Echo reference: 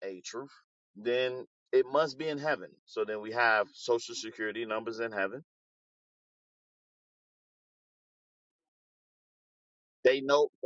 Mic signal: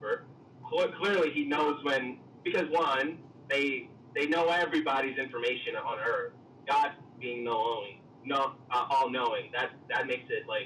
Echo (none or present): none